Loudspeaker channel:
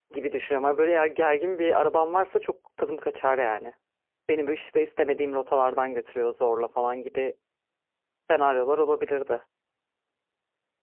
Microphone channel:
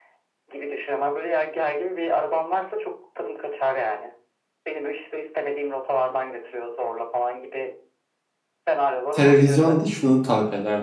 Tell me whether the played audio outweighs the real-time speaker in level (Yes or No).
No